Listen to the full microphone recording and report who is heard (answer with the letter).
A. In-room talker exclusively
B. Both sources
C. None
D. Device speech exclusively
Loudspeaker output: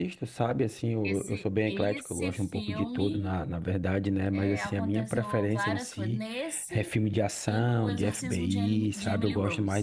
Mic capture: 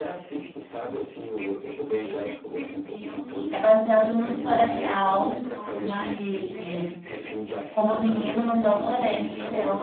B